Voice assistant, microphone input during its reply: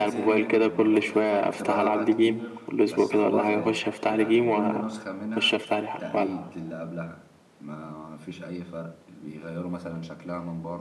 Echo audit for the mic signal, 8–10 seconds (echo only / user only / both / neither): user only